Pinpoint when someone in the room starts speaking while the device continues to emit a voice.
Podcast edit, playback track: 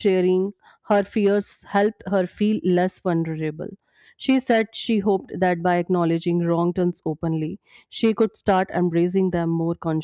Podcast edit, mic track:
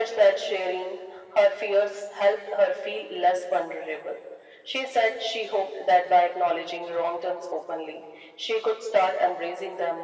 none

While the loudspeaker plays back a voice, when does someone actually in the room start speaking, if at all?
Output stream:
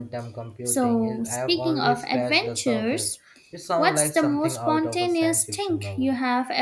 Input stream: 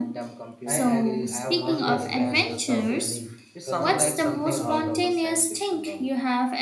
0.7 s

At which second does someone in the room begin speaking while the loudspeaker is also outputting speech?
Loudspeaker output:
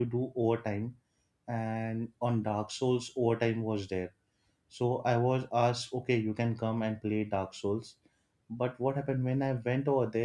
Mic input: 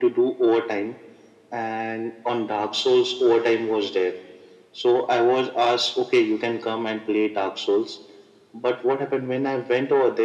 none

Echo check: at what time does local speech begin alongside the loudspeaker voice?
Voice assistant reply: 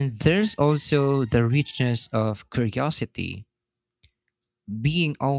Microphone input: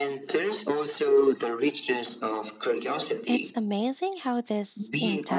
3.2 s

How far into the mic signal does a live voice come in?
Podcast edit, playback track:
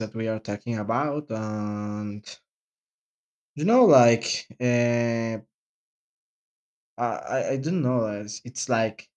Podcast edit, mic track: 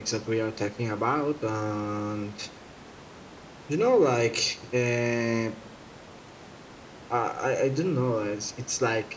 none

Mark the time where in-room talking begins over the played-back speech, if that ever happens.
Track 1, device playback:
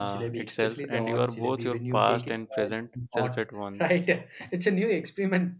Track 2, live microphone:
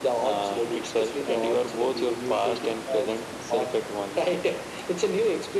none

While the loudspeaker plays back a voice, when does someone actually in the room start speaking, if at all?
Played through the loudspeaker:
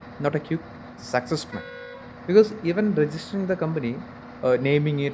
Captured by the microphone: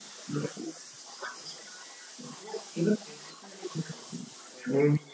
none

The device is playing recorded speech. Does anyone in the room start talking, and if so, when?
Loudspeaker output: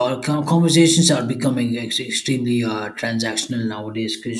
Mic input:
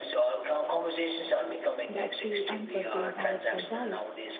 1.9 s

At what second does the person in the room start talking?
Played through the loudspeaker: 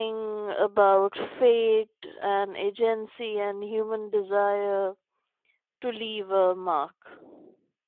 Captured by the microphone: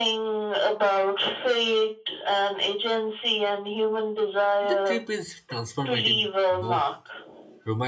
4.6 s

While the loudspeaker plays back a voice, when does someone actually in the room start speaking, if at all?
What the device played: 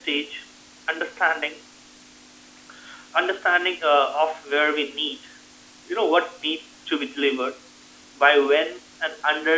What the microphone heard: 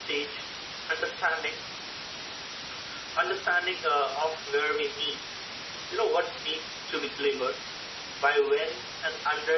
none

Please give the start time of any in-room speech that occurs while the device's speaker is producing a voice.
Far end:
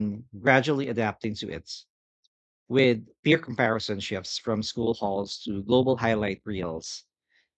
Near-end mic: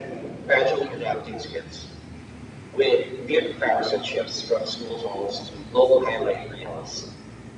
none

